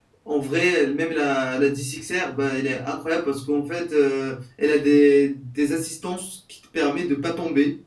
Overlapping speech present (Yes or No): No